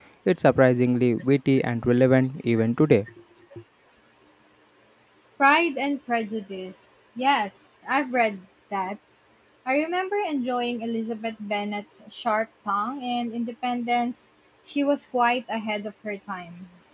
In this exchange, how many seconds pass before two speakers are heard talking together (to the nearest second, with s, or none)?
none